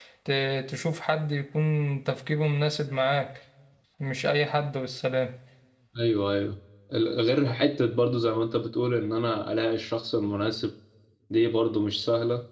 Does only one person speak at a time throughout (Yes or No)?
Yes